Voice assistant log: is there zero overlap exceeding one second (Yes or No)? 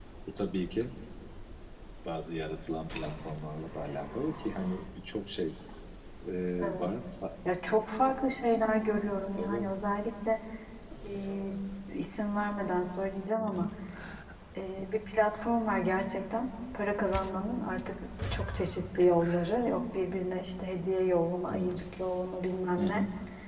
Yes